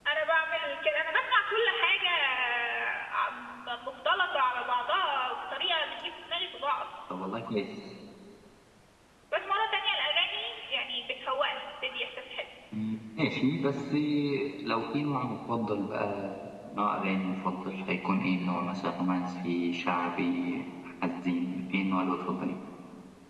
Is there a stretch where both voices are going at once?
No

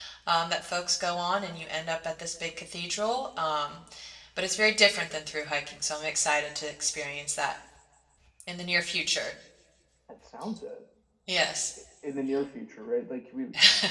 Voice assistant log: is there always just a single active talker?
Yes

